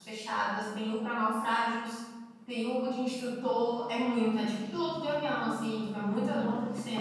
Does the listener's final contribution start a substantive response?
Yes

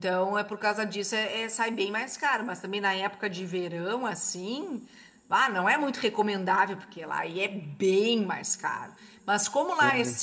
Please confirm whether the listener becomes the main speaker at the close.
No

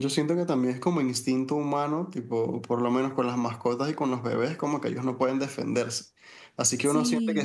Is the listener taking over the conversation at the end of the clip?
No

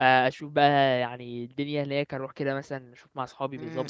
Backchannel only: No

